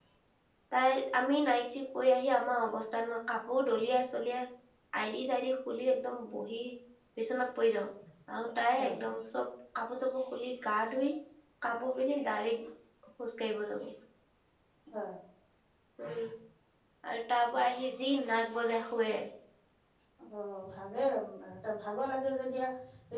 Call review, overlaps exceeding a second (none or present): none